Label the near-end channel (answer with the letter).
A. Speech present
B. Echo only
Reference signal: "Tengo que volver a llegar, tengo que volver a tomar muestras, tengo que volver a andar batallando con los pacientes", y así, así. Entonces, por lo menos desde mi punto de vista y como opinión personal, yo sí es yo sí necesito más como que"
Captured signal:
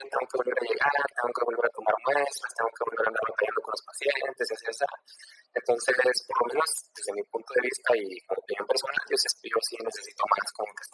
B